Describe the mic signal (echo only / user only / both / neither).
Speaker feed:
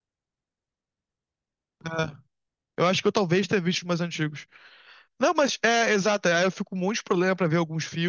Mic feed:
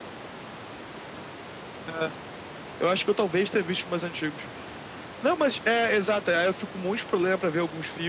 echo only